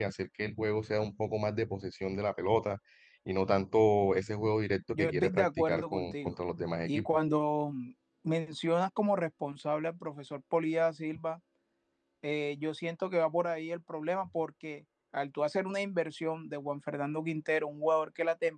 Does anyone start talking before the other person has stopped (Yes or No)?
Yes